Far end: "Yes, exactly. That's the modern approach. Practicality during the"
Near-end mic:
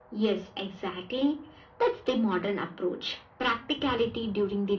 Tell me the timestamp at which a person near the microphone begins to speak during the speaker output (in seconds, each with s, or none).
none